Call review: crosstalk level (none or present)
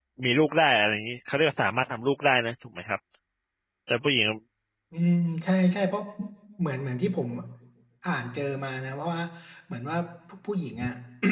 none